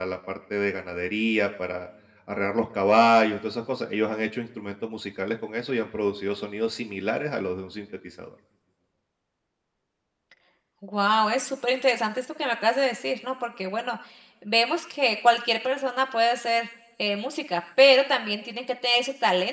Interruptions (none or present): none